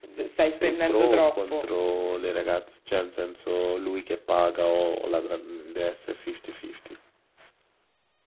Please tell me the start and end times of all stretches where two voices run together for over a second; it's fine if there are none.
0.5-1.7

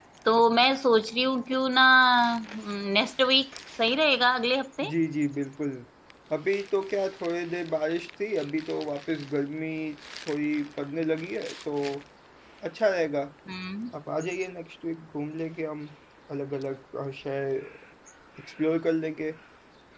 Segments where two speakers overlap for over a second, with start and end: none

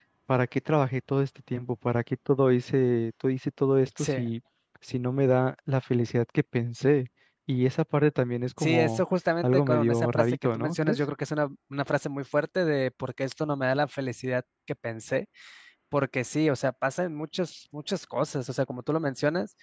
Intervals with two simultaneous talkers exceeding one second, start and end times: 9.4-11.0

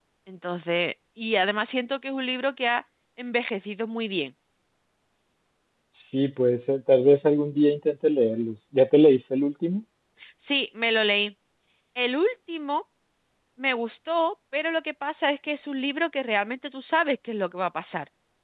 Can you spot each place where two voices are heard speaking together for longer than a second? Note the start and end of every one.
none

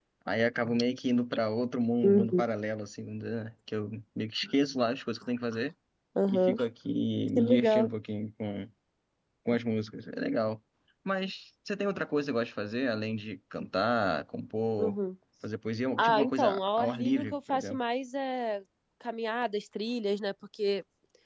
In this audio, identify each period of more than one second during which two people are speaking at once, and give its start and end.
16.0-17.8

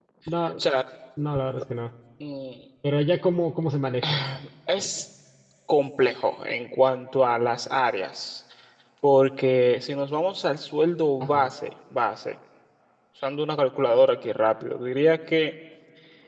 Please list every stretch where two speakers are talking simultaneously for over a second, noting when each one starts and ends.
none

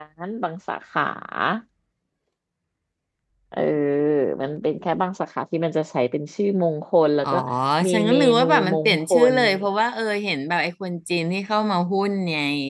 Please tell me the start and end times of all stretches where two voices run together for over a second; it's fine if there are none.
7.9-9.7

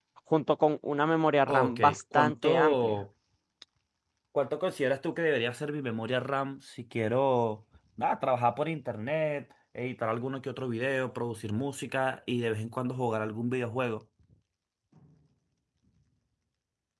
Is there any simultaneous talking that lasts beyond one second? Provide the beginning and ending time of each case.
1.5-3.0

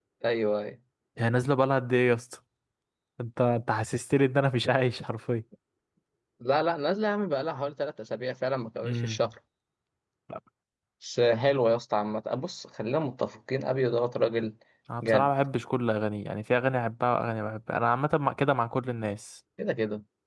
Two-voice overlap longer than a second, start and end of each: none

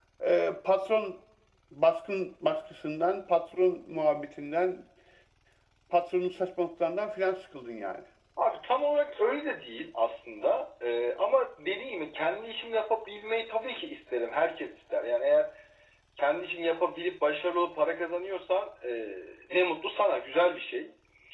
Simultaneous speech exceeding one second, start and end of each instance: none

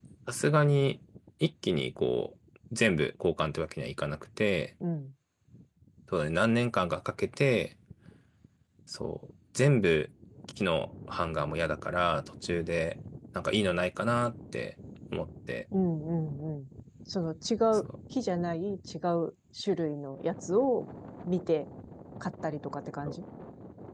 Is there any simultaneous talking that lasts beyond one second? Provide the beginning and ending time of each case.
none

